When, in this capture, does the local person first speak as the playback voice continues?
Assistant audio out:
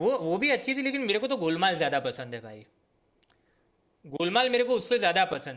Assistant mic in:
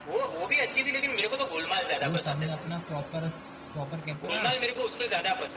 2.0 s

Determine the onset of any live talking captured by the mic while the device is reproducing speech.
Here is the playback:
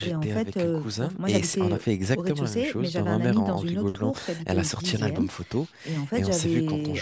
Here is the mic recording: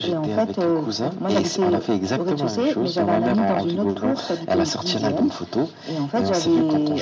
none

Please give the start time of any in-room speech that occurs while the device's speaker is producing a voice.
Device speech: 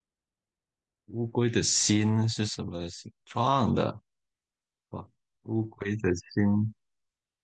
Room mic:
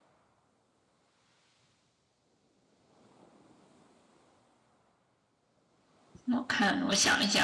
6.3 s

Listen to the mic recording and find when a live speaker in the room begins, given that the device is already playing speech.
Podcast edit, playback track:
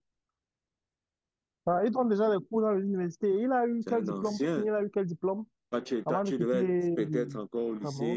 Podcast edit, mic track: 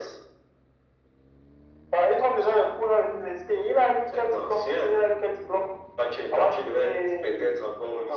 none

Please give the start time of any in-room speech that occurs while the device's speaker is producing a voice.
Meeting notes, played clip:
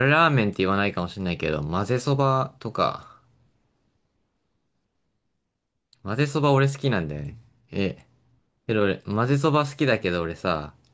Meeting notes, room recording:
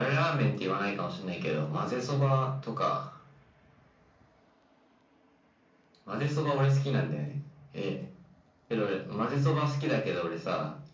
none

